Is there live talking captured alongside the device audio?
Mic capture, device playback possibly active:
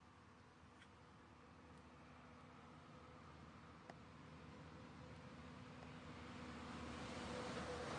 No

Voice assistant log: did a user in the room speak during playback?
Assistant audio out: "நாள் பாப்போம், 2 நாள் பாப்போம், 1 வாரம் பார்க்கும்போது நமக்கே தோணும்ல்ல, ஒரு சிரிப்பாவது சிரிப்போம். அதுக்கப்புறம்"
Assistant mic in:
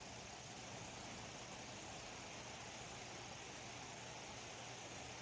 No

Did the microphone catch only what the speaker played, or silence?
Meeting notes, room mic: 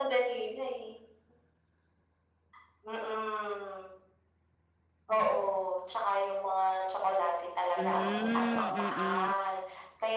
No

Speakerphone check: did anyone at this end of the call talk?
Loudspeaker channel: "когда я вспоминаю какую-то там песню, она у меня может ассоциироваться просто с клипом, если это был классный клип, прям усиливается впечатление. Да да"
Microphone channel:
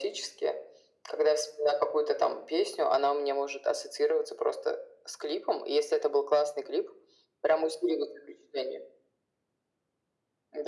No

